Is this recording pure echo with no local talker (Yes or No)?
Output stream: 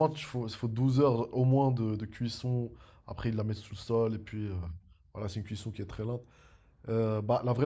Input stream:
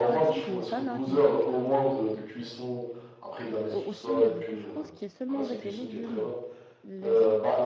No